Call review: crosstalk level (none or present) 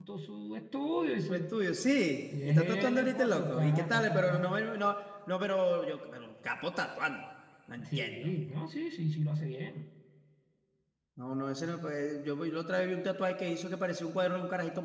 present